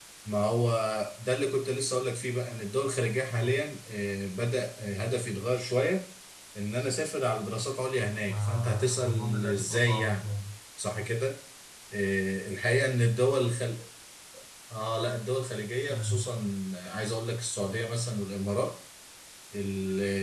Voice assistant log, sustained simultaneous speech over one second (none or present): present